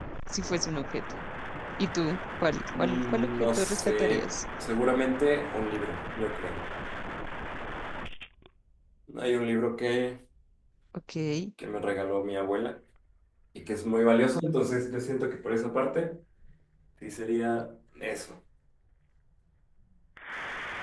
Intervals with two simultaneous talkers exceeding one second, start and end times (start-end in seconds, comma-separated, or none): 2.8-4.3